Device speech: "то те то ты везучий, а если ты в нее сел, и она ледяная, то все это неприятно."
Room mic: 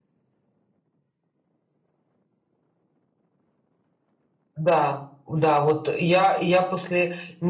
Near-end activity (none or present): present